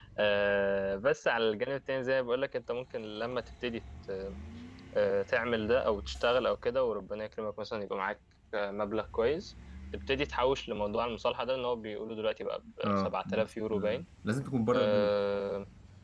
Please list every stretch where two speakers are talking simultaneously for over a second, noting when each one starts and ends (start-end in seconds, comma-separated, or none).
12.8-14.0